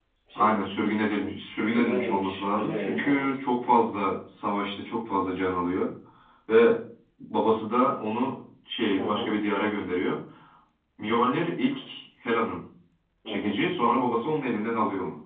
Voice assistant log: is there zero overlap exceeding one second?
No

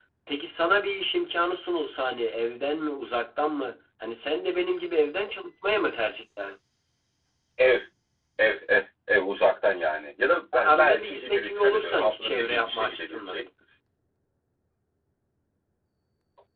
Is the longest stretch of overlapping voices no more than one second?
No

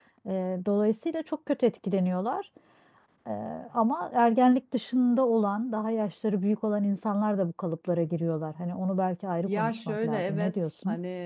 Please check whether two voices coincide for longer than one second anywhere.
Yes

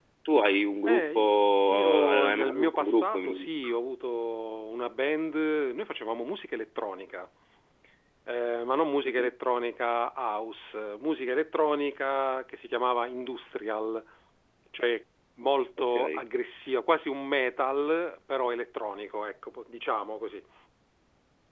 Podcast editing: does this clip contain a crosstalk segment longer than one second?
Yes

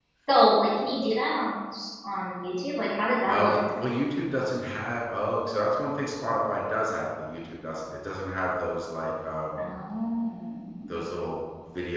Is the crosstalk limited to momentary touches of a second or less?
Yes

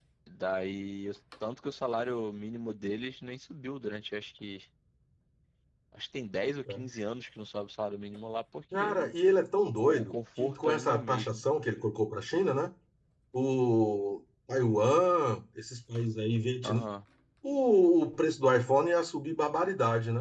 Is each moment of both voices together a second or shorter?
No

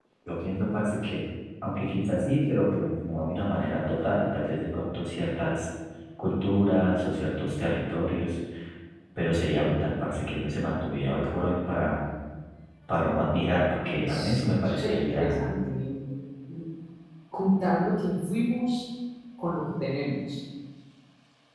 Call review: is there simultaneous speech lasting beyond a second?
Yes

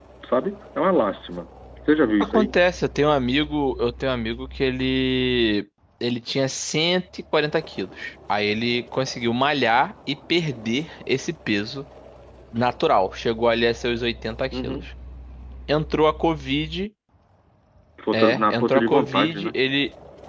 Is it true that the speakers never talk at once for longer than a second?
No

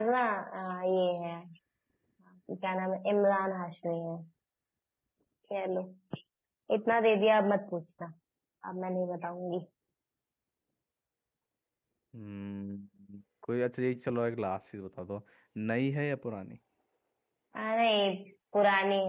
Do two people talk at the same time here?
No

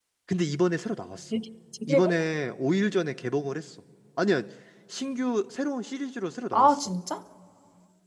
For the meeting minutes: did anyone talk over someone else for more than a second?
No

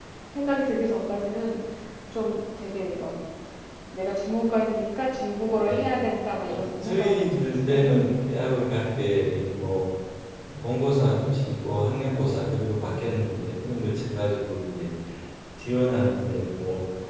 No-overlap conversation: No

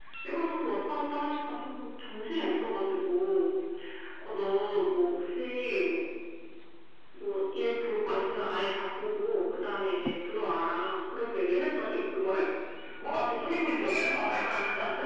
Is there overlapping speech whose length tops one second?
Yes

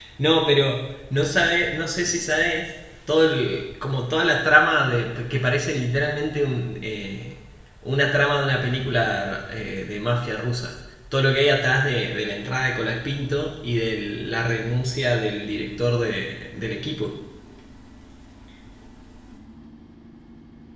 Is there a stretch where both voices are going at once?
No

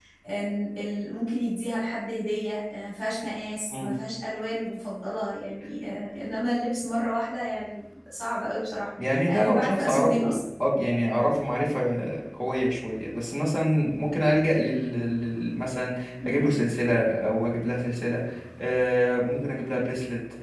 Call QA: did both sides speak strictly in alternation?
No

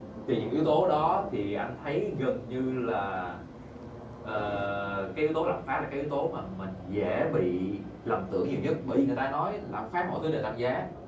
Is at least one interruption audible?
No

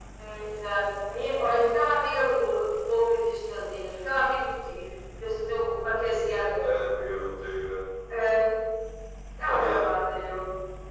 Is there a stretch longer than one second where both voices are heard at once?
No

